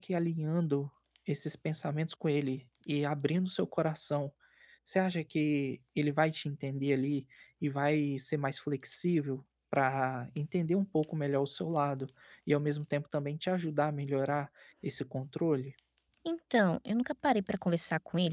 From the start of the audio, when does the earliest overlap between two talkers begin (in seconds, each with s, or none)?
none